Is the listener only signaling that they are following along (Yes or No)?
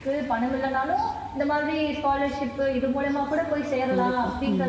Yes